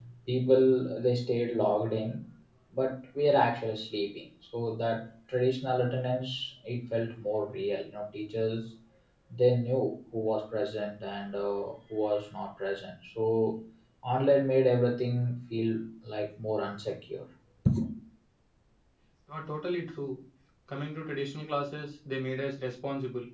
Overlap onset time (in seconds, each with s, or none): none